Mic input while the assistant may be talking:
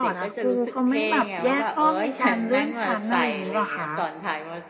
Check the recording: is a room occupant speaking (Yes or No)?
Yes